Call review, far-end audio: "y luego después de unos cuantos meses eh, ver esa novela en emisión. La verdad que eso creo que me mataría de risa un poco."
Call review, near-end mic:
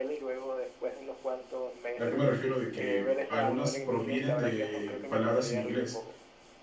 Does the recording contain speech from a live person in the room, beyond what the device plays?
Yes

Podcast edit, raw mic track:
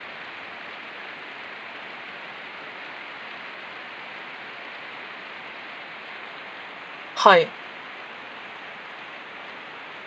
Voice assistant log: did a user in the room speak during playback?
Yes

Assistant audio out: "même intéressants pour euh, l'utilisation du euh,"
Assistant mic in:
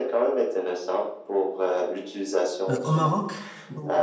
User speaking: Yes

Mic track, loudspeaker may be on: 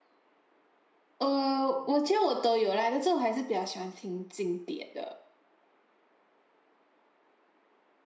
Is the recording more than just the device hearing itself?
Yes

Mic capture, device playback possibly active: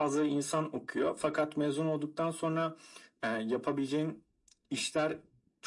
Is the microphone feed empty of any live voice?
Yes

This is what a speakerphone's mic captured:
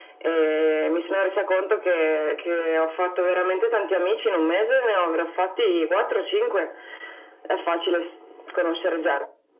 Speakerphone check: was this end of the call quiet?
Yes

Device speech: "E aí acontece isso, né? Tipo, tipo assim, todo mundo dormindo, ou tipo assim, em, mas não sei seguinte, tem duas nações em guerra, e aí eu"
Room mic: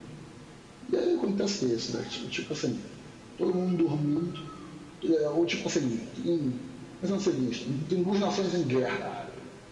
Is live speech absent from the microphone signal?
No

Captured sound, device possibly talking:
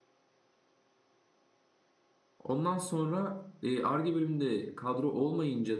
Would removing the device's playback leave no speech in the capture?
No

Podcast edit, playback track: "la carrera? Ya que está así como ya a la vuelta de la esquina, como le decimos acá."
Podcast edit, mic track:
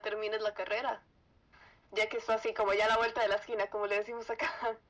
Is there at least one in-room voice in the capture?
No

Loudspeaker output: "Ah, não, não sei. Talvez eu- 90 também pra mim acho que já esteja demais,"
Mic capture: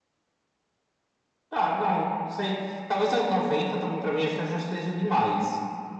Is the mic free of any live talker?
Yes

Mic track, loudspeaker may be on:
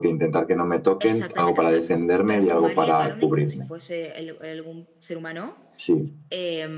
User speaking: Yes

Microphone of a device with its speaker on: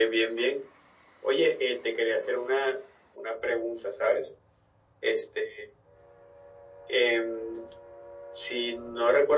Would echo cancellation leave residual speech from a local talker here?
No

